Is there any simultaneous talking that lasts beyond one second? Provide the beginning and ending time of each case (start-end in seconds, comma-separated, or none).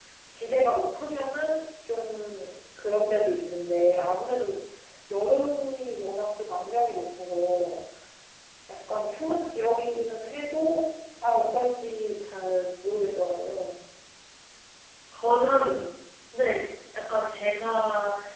none